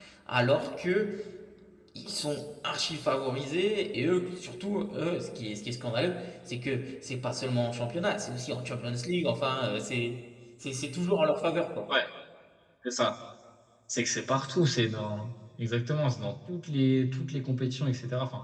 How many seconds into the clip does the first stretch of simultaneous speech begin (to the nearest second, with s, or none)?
none